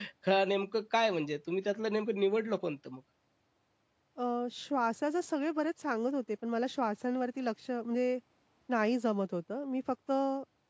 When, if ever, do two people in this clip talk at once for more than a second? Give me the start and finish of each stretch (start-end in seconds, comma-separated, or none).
none